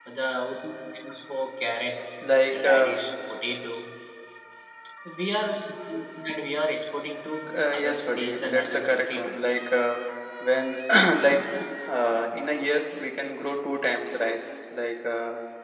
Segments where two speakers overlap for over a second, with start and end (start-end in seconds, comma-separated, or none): 7.7-9.4